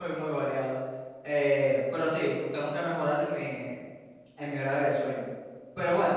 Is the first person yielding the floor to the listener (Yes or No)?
No